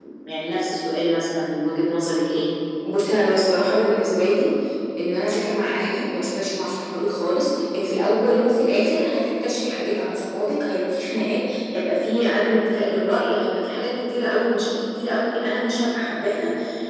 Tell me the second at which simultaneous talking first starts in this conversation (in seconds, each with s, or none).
none